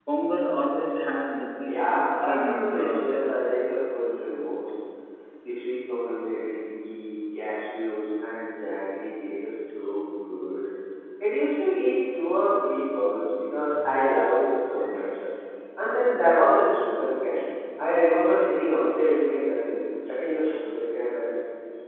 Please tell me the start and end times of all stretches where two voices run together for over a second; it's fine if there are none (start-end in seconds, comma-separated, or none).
1.6-3.4